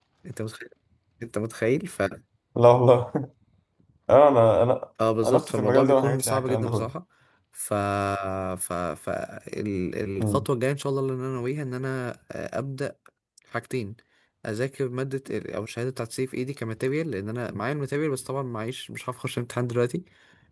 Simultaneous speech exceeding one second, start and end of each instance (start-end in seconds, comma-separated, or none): 5.2-6.9